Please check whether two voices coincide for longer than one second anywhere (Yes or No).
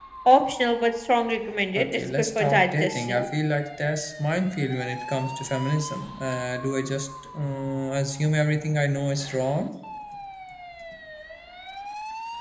Yes